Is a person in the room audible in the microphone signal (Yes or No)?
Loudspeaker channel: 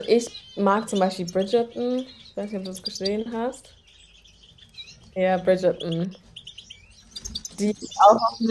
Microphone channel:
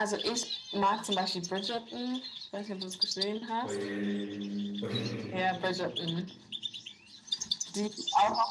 Yes